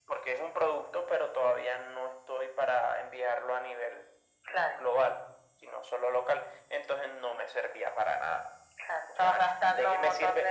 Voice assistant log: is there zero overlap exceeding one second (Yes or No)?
No